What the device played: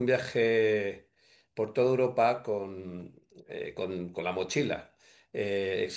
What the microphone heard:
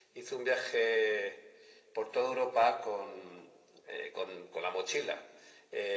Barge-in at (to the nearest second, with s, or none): none